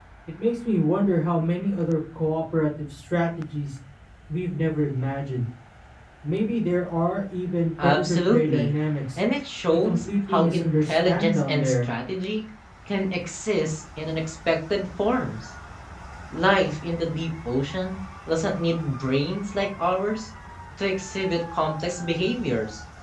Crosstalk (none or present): present